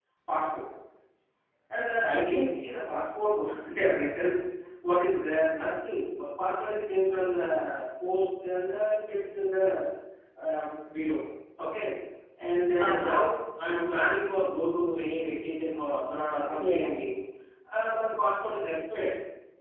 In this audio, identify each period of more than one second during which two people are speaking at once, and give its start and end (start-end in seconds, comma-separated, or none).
none